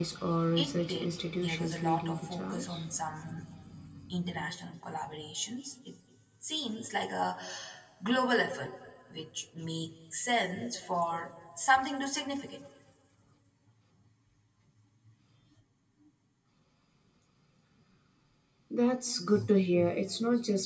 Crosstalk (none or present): present